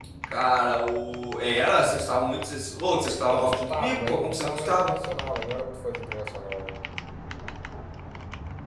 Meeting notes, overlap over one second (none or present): present